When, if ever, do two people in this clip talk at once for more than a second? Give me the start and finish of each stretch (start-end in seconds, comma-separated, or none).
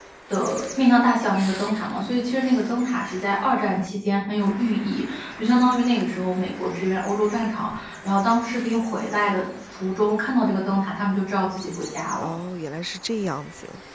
none